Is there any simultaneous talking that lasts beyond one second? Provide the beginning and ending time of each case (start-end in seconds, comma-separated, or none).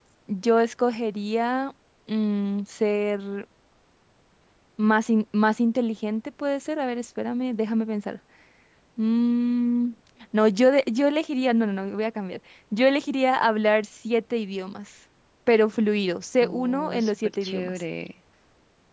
16.4-17.8